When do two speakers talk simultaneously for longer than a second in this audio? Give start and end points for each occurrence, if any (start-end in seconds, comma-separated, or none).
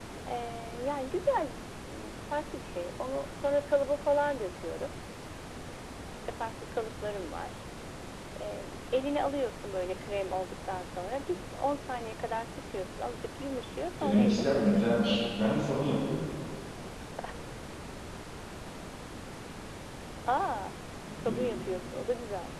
14.0-15.4